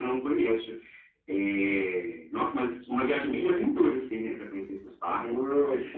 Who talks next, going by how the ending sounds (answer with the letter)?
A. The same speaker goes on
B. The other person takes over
B